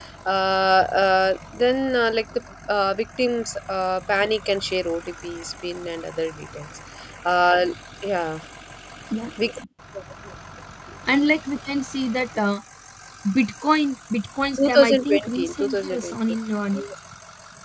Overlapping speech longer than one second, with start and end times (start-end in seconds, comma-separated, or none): 14.6-16.2